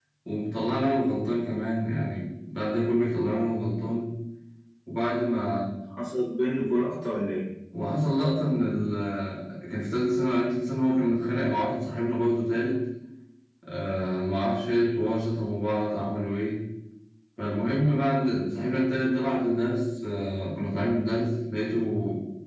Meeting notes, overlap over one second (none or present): none